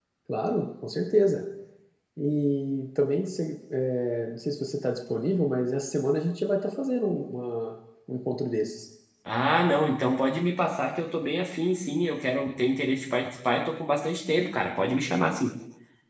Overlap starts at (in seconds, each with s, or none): none